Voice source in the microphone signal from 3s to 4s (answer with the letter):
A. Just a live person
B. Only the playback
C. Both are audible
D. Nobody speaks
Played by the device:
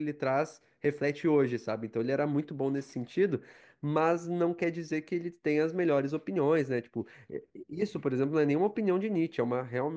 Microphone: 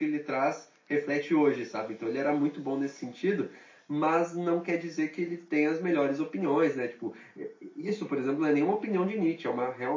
B